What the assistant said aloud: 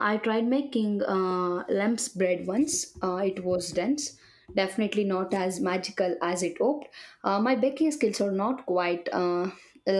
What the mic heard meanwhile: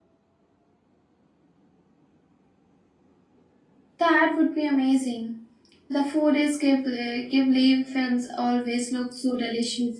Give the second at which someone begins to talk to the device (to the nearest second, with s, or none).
4 s